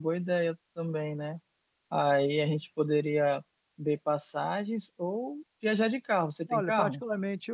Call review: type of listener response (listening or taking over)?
taking over